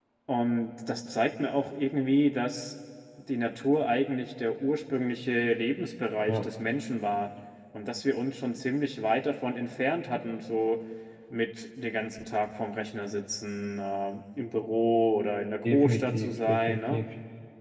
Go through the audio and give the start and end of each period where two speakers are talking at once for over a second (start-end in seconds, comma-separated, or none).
15.7-17.0